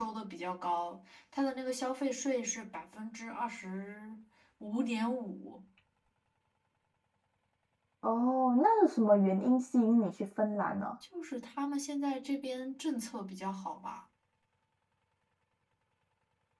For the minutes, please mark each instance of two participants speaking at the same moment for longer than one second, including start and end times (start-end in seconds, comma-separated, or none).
none